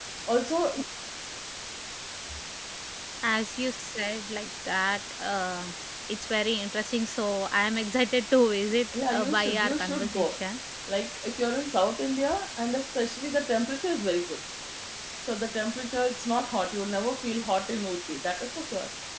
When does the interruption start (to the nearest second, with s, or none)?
9 s